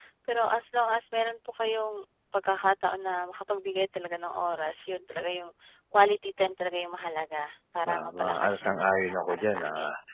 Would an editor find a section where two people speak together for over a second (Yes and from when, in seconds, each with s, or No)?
Yes, from 7.9 s